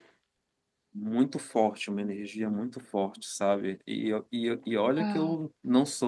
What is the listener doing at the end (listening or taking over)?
listening